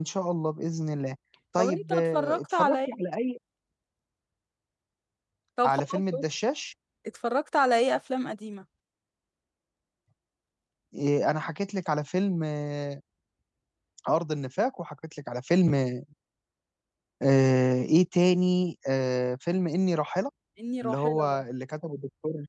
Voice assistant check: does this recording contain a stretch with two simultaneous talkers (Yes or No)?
Yes